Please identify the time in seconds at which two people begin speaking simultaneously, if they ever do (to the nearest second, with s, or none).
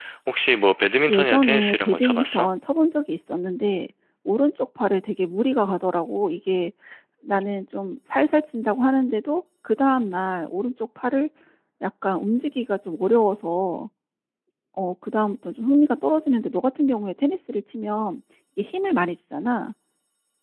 1 s